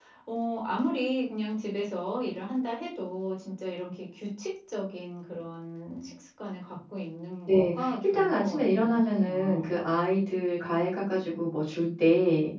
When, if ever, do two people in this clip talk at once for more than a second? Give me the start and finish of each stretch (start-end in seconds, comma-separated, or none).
7.5-9.7